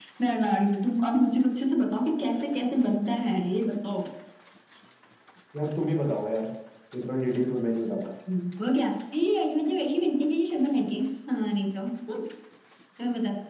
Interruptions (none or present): none